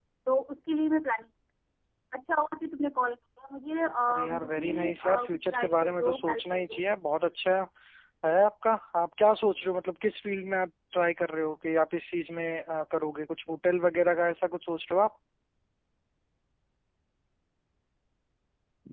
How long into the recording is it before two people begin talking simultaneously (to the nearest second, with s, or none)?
4 s